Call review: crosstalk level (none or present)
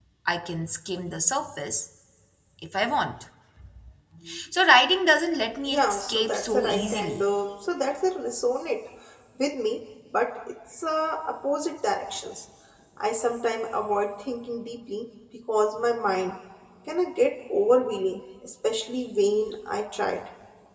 present